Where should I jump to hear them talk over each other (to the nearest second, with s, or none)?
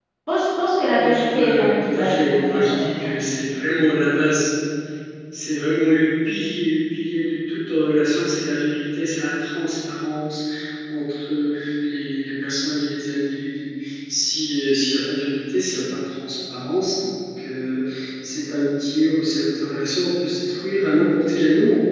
1 s